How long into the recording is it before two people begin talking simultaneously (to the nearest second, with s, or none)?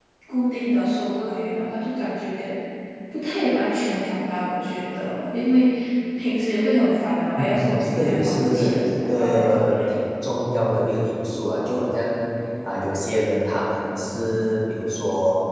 7 s